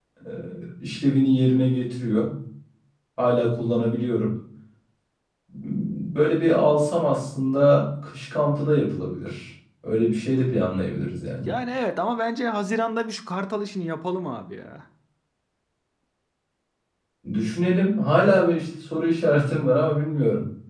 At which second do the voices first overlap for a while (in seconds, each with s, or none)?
none